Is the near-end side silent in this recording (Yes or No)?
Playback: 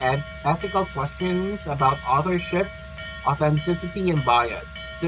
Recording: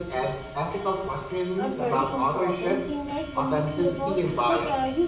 No